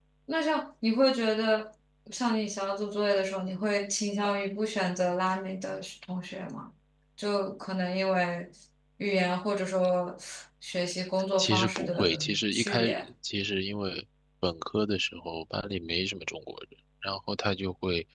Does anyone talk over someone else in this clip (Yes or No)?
Yes